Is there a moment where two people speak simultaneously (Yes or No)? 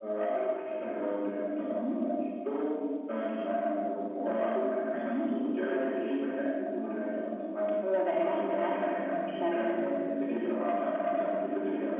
Yes